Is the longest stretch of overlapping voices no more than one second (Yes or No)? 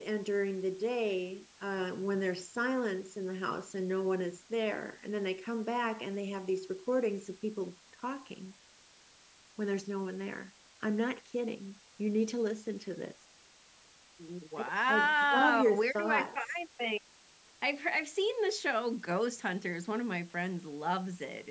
No